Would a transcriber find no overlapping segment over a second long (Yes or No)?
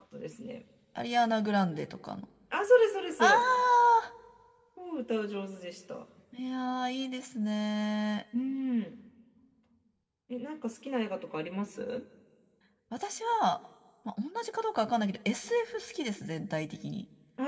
Yes